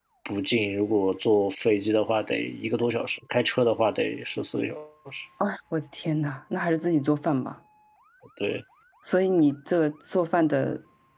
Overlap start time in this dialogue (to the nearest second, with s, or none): none